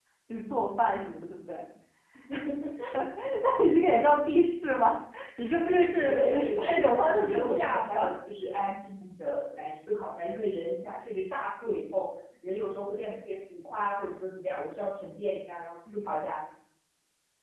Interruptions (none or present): present